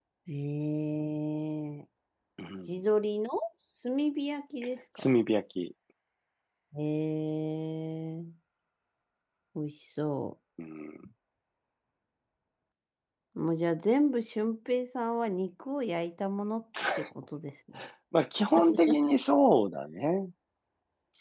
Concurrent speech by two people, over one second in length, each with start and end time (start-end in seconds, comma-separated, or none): none